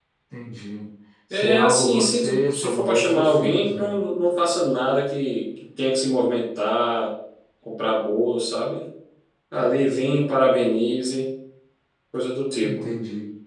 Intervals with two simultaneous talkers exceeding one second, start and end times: 1.3-3.9

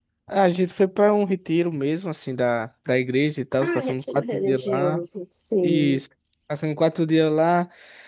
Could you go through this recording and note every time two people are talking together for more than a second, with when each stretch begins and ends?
3.6-5.0

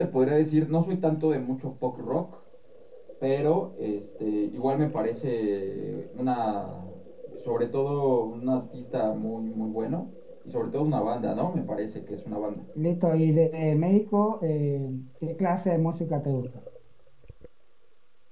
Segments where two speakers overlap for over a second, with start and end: none

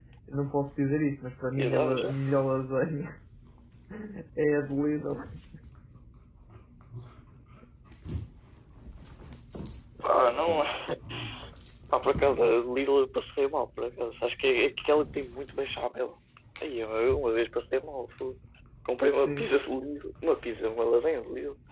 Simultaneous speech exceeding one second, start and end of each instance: none

